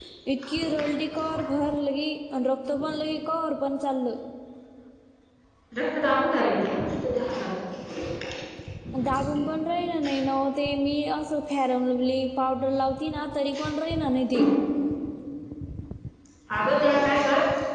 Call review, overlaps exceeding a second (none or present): none